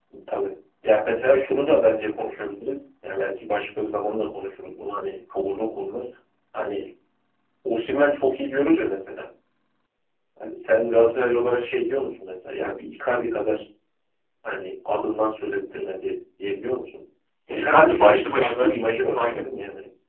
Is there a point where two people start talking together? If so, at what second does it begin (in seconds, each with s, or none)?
17.5 s